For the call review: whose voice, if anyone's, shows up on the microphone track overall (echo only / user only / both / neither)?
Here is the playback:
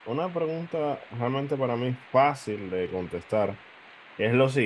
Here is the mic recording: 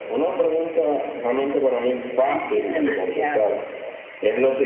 both